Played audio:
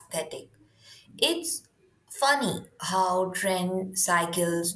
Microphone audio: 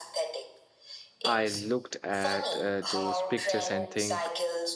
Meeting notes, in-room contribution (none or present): present